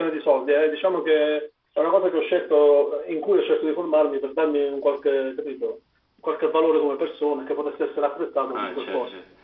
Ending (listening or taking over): taking over